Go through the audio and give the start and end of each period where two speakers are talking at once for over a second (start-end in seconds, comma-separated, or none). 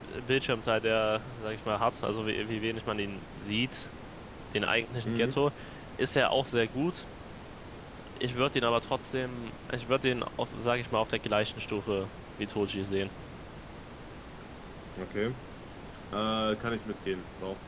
none